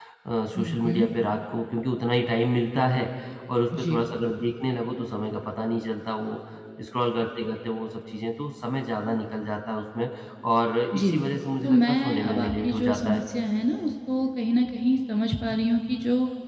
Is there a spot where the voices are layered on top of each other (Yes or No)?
Yes